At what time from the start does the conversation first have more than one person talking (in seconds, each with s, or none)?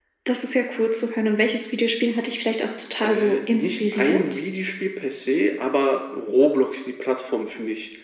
3.0 s